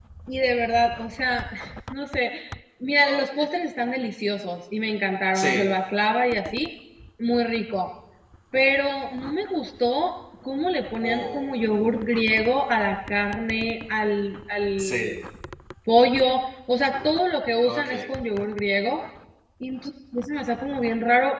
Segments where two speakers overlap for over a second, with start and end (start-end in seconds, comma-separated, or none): none